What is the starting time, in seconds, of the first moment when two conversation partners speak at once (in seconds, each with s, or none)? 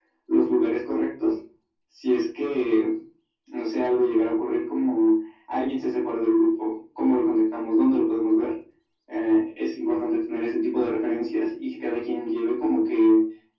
none